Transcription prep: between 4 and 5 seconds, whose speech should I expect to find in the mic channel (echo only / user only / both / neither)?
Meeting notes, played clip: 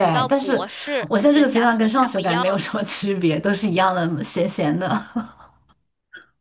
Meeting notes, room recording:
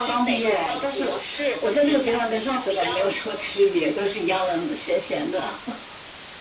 echo only